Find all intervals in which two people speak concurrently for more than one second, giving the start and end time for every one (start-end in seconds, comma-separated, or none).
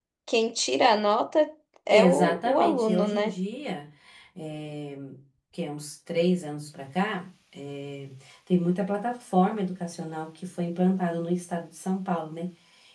1.9-3.3